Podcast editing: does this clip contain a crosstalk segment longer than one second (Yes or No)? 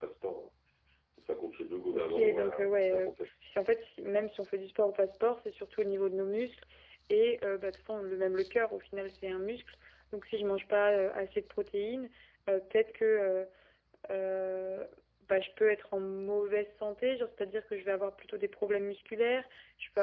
Yes